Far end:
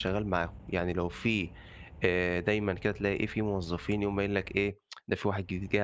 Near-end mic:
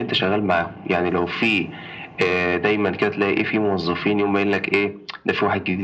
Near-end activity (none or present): none